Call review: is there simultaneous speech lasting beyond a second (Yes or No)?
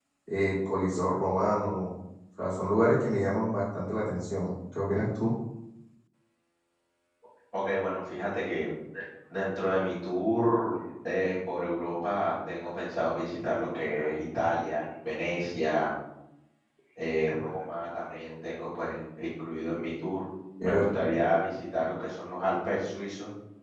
No